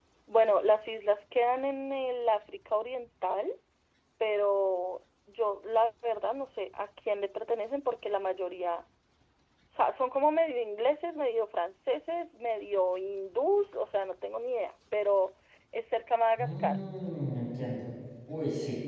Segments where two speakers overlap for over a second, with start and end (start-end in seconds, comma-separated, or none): none